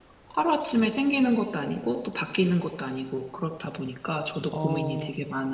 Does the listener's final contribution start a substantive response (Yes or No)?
Yes